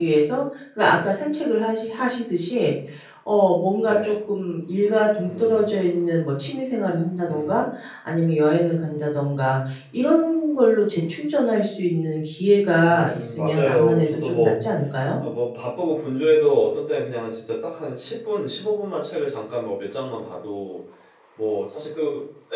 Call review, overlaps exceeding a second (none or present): present